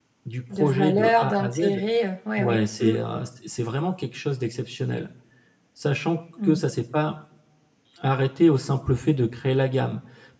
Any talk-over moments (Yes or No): Yes